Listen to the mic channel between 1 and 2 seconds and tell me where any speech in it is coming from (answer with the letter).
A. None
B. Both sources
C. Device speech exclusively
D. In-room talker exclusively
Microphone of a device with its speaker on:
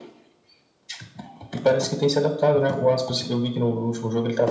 C